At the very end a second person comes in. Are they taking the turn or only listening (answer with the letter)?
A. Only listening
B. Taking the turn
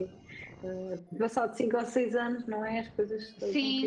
B